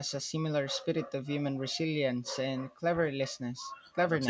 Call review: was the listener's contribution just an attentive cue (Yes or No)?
No